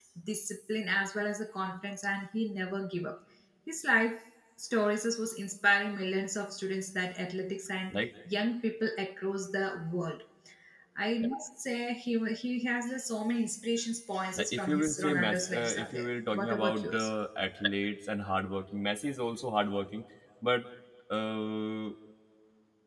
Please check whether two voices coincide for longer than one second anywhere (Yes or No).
Yes